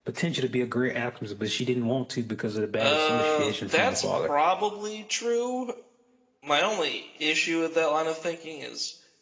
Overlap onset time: 2.8 s

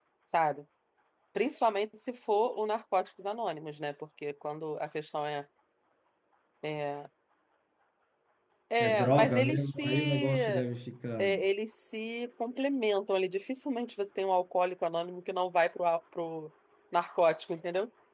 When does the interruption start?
8.8 s

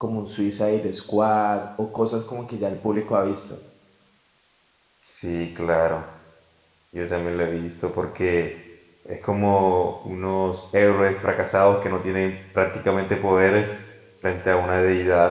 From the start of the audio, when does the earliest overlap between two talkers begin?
none

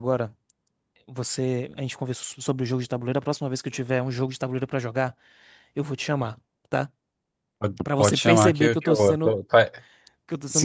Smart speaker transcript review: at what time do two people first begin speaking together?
8.0 s

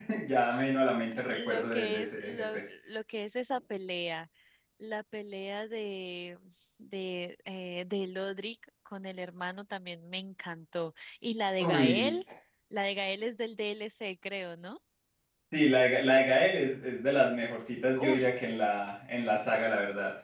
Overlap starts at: 1.3 s

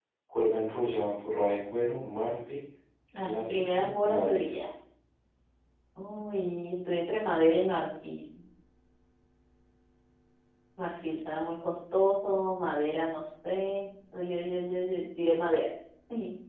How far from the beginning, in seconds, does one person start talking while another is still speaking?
3.2 s

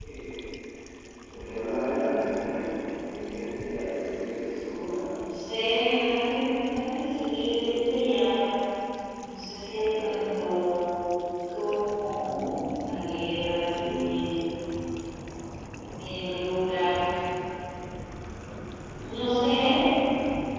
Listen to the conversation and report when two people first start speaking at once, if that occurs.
none

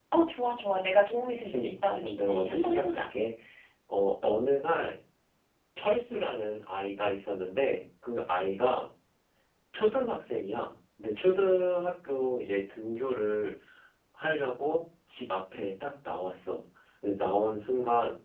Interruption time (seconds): 1.5 s

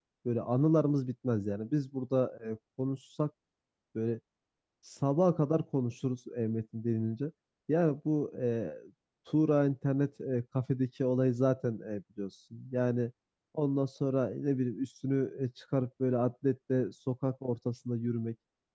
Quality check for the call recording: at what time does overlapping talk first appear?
none

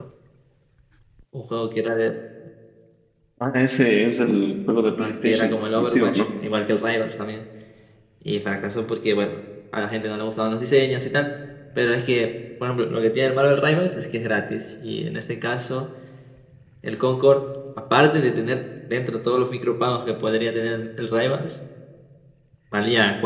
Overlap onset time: 4.8 s

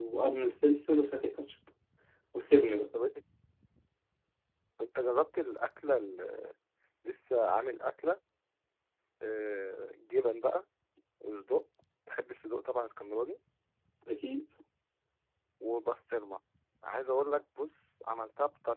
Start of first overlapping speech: none

